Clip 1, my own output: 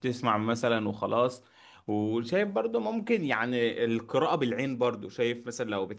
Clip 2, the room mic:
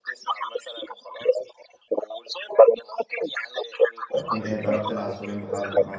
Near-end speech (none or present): present